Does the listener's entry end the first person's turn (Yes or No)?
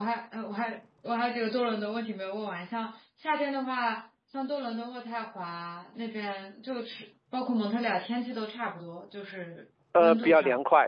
Yes